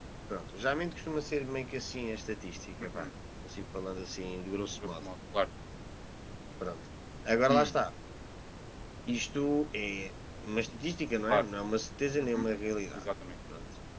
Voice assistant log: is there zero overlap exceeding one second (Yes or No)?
Yes